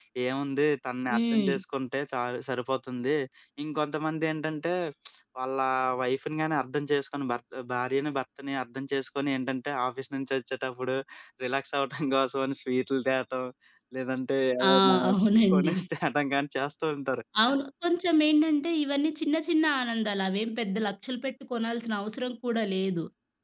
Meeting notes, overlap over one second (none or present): none